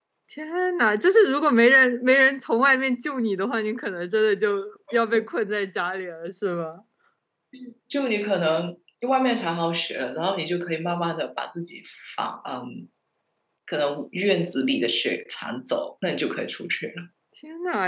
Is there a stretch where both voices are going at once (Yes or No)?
No